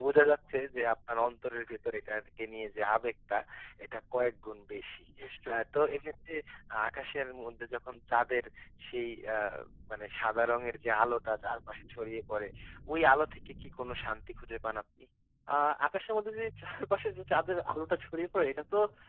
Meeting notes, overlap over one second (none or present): none